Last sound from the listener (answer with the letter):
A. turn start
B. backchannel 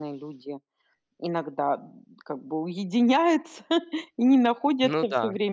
B